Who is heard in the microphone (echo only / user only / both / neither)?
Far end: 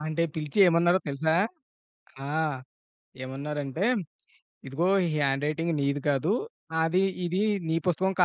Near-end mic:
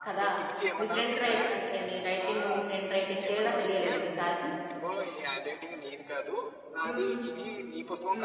both